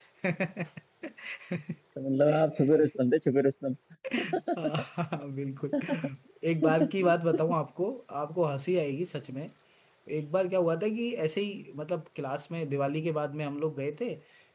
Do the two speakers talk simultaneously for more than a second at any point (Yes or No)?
No